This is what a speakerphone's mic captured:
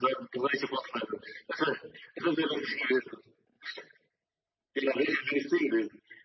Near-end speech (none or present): none